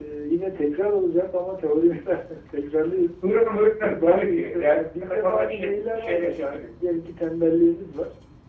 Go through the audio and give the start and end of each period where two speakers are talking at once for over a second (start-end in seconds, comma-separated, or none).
3.8-6.7